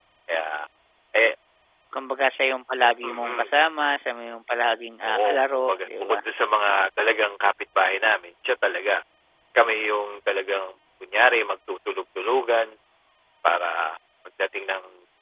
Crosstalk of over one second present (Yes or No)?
Yes